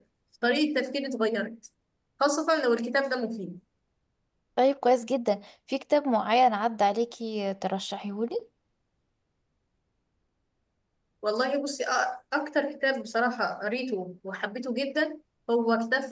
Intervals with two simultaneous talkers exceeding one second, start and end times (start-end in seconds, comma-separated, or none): none